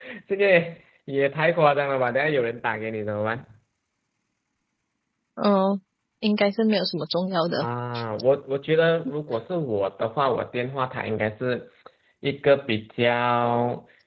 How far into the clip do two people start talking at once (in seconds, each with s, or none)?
none